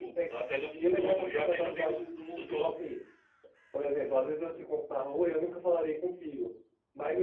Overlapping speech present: Yes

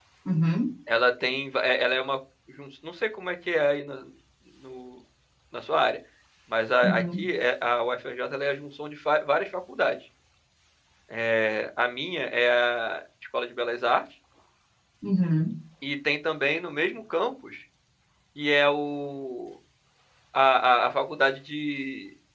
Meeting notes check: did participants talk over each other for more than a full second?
No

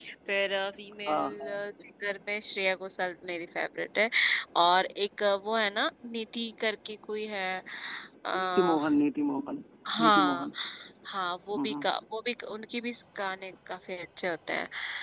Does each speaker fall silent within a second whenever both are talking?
Yes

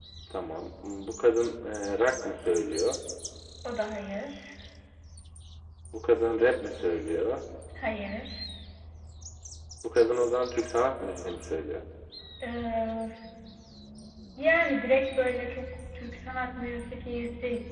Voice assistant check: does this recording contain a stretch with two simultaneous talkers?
No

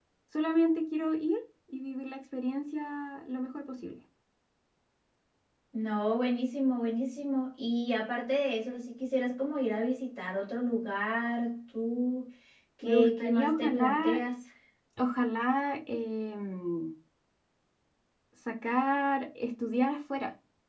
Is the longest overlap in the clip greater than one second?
Yes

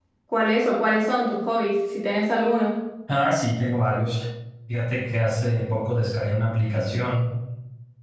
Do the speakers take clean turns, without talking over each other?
Yes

